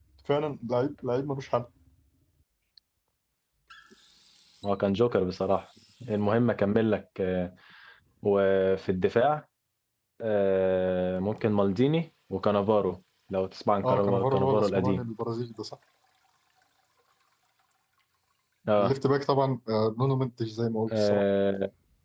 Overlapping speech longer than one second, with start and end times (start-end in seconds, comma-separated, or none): 13.8-15.0